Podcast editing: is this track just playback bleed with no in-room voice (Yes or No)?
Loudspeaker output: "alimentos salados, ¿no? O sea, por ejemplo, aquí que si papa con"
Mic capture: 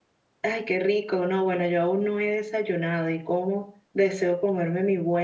No